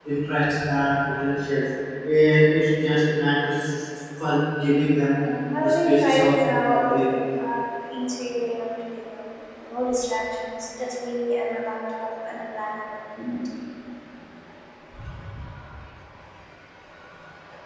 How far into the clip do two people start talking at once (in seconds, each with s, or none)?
5.6 s